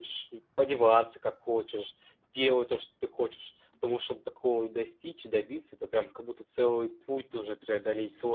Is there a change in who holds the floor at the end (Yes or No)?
Yes